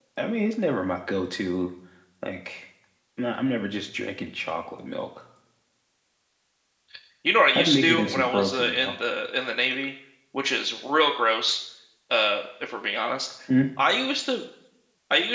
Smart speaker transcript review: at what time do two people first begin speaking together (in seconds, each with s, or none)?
7.5 s